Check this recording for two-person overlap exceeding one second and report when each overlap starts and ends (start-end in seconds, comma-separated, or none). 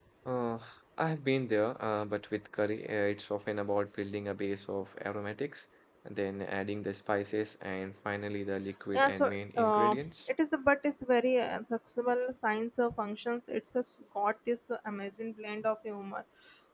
8.9-10.3